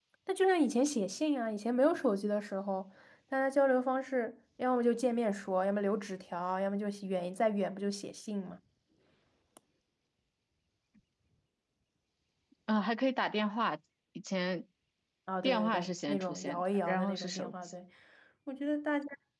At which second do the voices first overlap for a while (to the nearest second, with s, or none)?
15 s